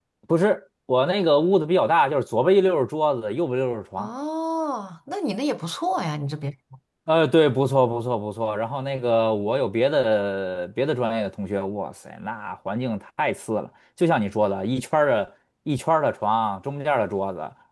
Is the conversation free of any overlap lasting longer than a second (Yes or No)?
Yes